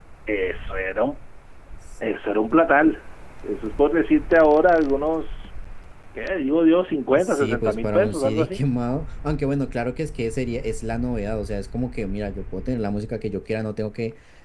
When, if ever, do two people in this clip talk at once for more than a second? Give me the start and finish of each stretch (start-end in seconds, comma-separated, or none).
7.2-8.6